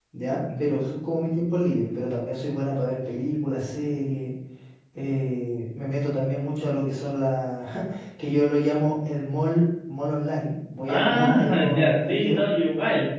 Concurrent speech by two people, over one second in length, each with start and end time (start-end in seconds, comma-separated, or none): 10.9-12.4